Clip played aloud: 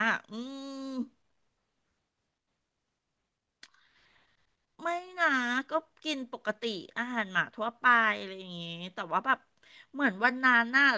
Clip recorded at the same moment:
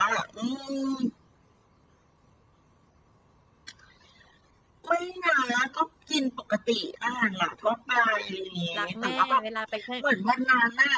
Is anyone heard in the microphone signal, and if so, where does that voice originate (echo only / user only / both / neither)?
both